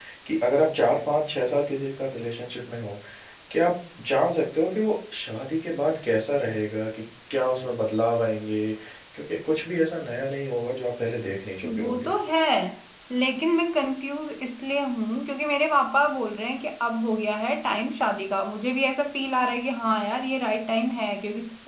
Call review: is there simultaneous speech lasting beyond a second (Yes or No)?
No